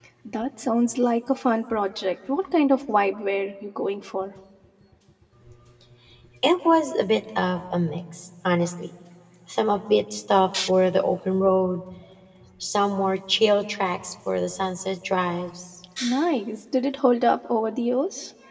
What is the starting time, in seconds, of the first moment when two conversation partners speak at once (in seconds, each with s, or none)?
none